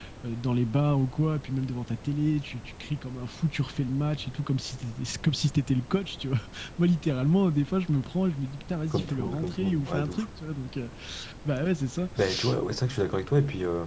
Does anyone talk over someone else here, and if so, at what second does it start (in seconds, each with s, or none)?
8.9 s